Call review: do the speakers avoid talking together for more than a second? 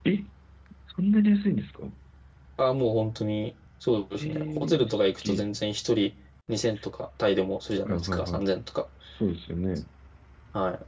No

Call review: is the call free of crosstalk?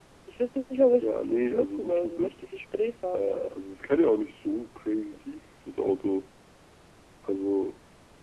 No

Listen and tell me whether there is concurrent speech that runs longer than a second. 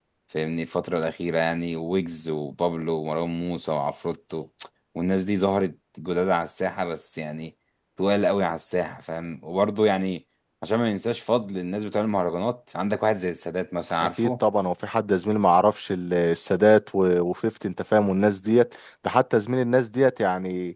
No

